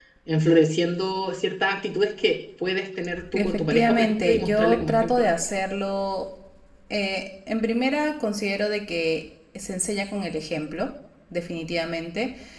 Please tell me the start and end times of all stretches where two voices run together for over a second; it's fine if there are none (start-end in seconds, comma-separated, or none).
3.3-5.4